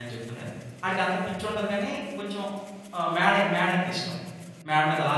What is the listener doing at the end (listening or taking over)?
taking over